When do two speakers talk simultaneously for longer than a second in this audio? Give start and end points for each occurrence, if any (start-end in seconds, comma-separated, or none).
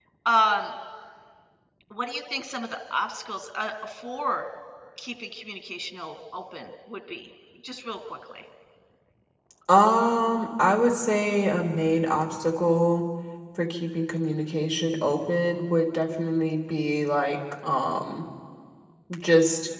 none